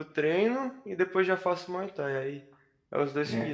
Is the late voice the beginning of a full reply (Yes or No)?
Yes